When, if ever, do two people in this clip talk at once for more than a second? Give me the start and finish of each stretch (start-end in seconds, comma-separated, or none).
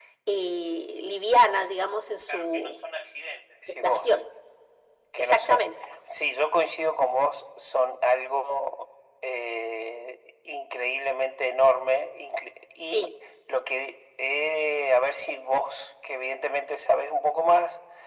none